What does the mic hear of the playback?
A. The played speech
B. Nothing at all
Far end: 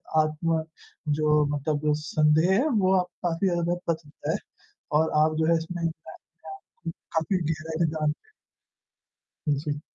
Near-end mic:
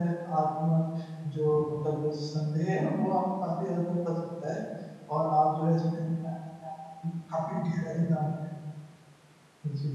A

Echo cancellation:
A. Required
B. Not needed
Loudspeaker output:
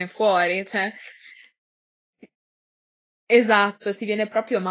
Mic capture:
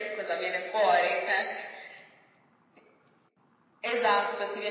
A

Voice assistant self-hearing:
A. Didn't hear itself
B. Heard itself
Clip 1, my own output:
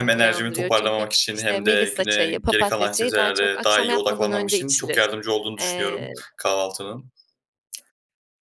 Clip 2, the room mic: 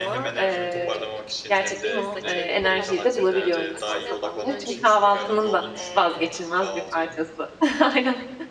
B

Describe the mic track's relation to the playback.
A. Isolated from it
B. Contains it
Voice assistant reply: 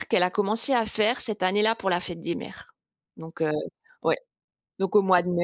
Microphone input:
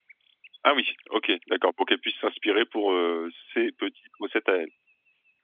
A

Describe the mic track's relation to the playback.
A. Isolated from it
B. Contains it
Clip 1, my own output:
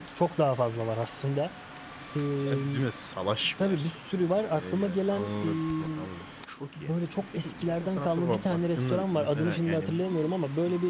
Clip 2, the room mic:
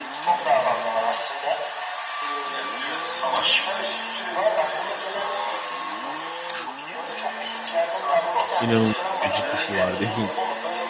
B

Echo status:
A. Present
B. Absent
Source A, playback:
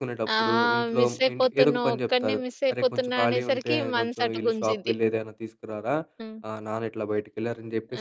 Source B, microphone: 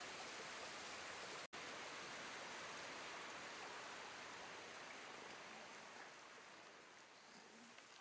B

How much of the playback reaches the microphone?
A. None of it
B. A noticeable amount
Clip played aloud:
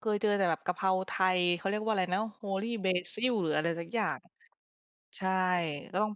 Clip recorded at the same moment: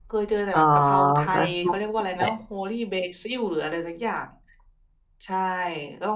B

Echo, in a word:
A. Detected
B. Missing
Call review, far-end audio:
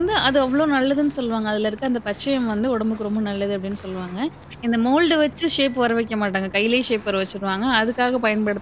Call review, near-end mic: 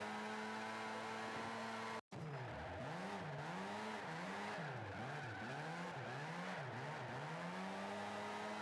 B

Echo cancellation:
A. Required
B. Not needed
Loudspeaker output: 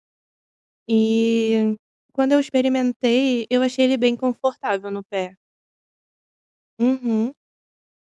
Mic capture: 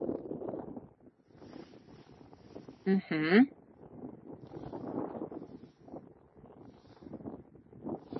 B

